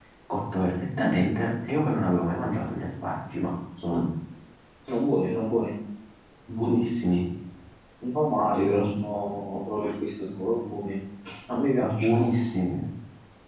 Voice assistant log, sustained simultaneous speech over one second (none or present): none